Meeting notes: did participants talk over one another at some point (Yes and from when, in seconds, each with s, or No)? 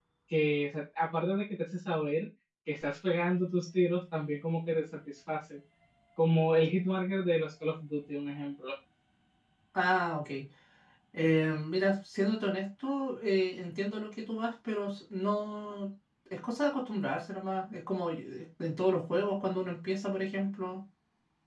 No